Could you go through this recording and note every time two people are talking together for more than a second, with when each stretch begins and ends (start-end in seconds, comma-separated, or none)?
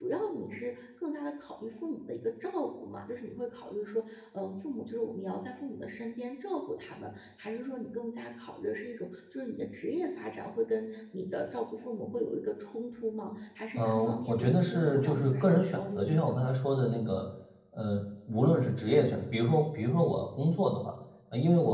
13.8-16.2